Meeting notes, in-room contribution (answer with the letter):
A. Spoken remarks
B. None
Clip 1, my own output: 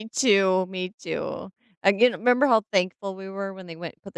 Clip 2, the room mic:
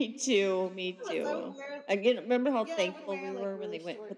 A